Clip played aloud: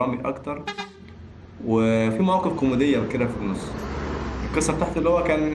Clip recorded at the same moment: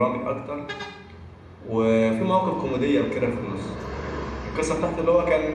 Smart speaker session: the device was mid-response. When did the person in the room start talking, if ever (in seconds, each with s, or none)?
none